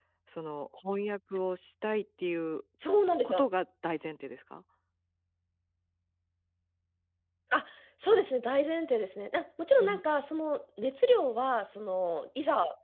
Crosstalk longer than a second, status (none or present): none